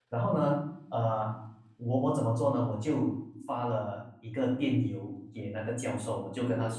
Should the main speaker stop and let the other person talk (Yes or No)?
No